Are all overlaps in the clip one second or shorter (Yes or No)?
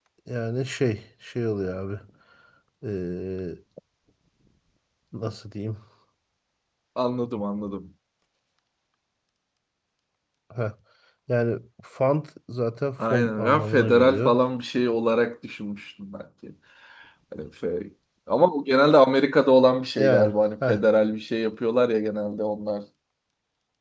No